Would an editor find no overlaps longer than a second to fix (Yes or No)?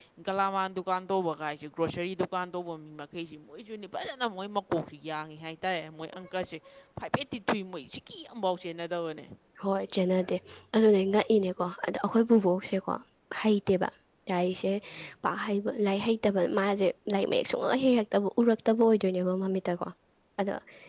Yes